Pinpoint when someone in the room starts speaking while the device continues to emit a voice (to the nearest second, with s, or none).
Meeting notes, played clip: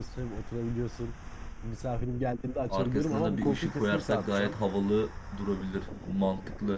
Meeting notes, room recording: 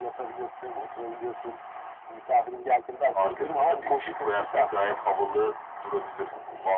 none